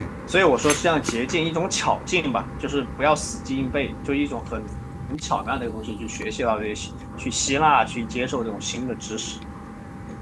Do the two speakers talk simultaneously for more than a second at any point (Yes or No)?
No